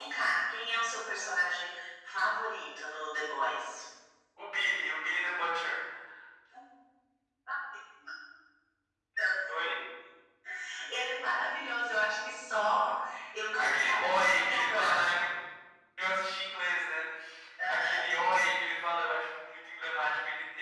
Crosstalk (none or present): present